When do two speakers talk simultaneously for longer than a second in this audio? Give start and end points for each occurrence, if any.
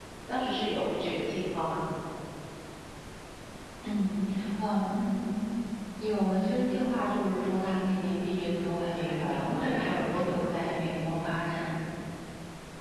8.9-10.4

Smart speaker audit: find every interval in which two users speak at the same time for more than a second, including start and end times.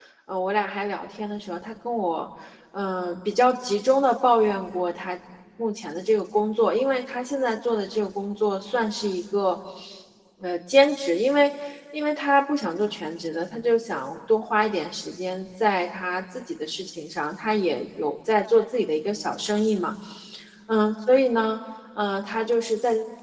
none

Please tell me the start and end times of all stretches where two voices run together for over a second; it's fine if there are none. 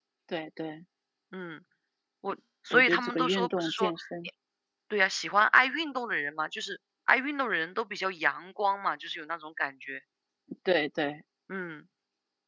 2.7-3.9

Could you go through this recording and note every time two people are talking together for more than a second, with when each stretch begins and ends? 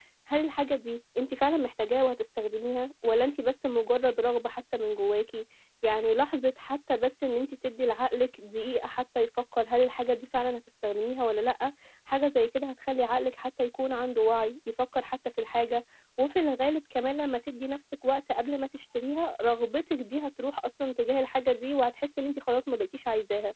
none

